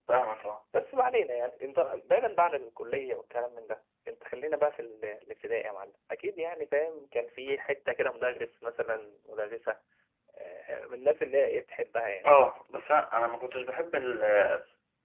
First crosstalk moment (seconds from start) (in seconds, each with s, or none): none